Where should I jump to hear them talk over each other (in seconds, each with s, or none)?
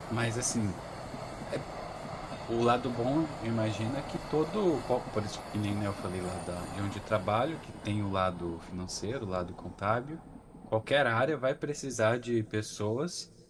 none